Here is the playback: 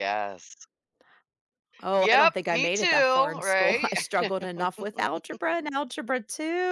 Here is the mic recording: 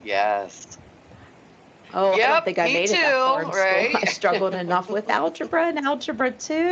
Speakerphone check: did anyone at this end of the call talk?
No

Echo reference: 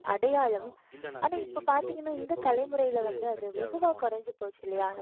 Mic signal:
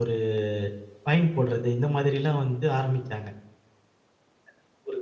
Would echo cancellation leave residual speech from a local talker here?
Yes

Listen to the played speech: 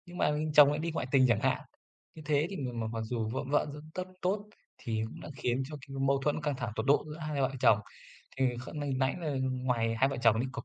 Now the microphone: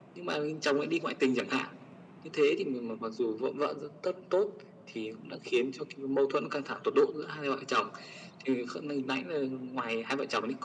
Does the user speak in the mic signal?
No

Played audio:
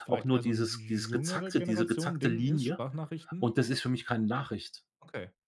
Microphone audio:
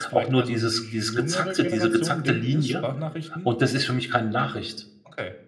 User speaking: No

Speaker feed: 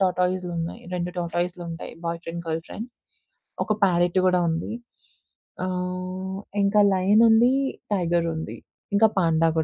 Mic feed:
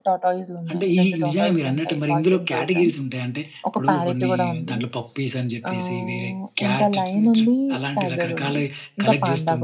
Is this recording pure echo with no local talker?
No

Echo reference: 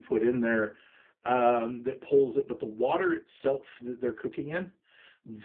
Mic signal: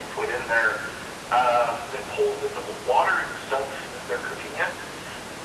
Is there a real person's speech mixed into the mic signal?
No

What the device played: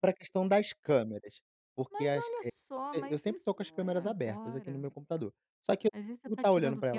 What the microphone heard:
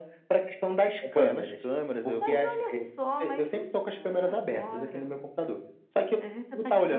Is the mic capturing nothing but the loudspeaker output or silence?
No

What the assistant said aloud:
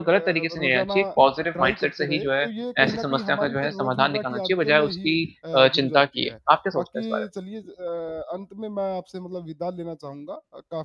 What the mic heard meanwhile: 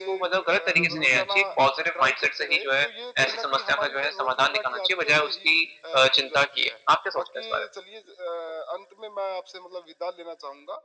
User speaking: Yes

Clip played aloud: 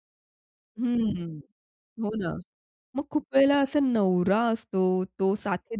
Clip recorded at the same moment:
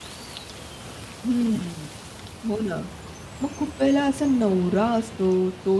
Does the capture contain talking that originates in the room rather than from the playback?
No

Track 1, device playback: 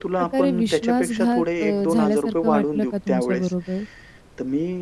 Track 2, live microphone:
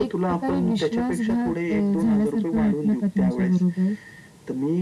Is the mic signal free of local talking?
Yes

